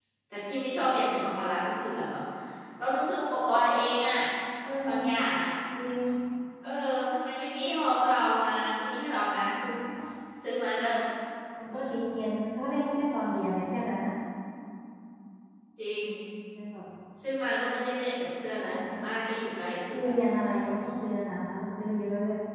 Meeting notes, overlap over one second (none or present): none